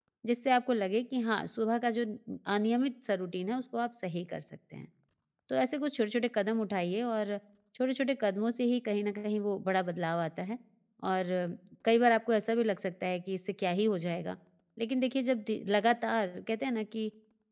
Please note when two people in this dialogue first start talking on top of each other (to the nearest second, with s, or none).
none